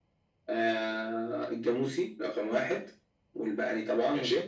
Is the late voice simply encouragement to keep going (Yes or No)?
Yes